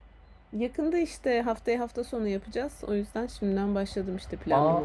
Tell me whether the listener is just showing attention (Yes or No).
No